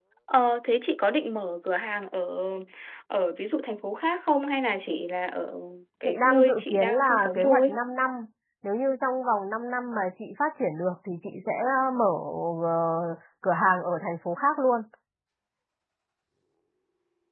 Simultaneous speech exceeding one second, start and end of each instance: 6.0-7.7

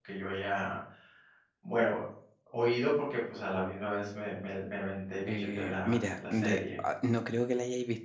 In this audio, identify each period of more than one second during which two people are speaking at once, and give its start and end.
5.3-6.6

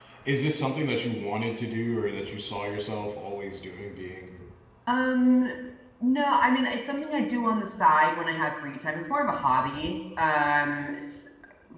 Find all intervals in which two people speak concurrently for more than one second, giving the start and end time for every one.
none

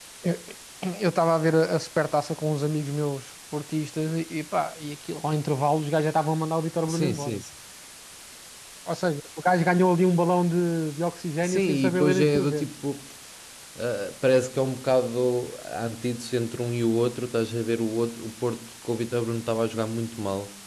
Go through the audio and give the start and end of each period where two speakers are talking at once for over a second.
11.4-12.7

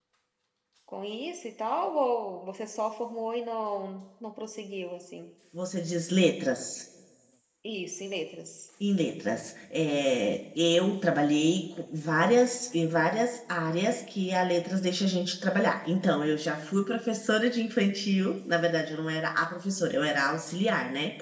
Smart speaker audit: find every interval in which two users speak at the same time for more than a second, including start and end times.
none

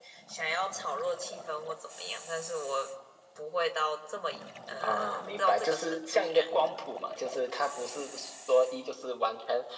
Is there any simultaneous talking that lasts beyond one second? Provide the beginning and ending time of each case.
4.8-6.4

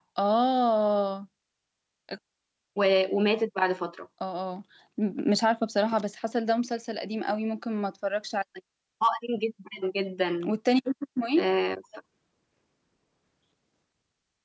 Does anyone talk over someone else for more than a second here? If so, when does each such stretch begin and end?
none

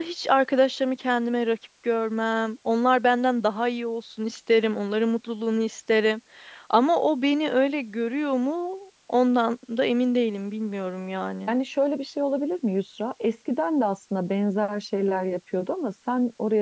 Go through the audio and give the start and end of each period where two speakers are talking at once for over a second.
none

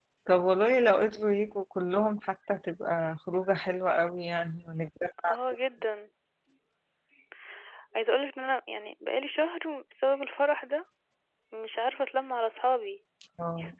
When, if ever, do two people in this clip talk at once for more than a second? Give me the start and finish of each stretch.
none

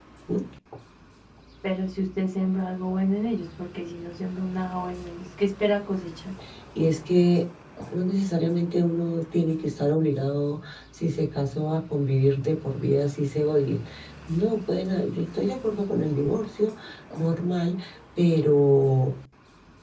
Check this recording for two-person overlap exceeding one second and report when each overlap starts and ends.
none

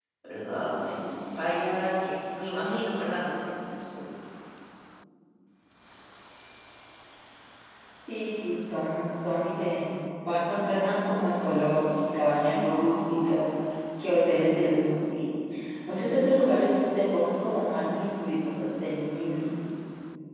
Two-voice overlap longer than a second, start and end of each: none

